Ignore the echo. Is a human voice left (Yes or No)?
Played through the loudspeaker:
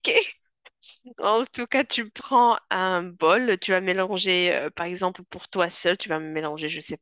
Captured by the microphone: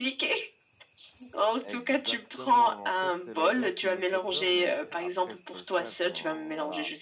Yes